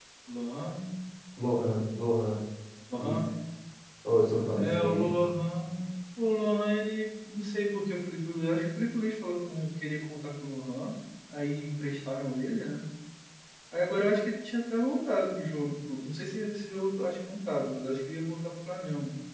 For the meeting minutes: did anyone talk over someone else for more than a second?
No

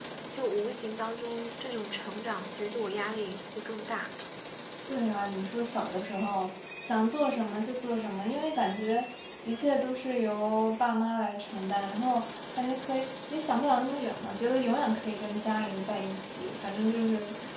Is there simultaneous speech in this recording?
No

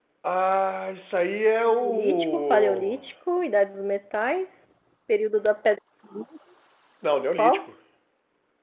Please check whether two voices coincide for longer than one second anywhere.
Yes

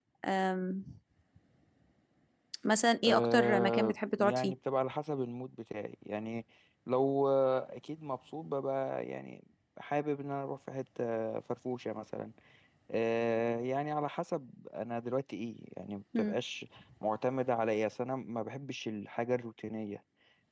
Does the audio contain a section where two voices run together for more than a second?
Yes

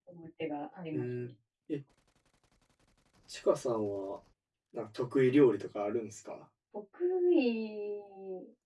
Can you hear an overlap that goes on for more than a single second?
No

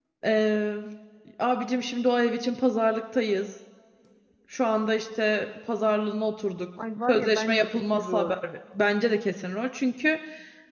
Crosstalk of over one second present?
Yes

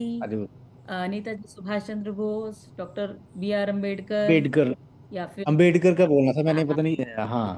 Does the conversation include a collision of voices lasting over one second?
No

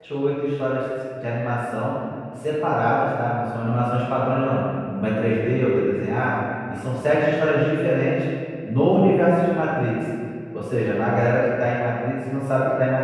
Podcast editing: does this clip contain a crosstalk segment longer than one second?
No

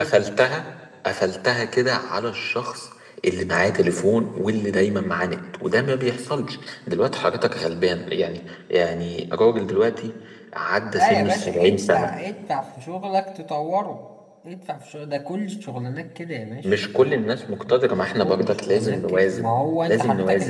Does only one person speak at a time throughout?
No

